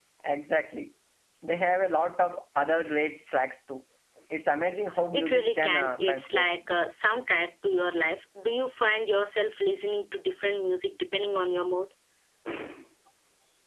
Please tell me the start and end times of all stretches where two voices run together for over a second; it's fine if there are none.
5.1-6.5

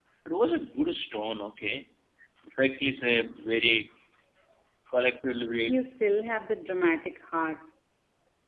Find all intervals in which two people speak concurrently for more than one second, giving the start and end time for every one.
none

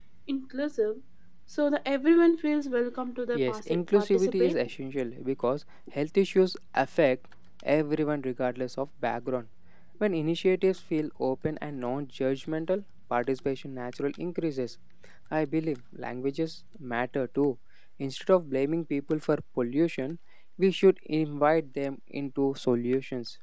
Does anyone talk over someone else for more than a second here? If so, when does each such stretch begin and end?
3.3-4.6

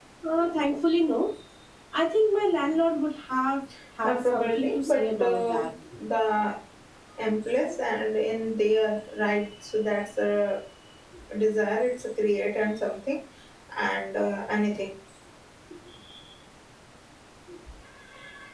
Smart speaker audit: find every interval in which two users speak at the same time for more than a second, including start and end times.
4.0-5.7

